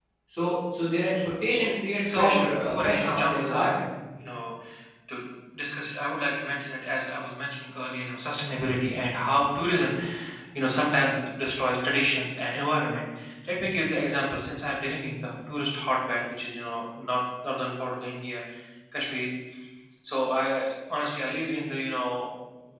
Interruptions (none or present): present